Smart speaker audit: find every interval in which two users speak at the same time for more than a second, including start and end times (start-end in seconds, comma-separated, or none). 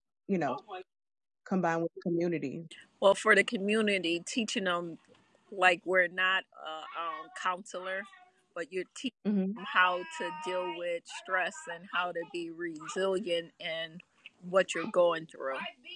none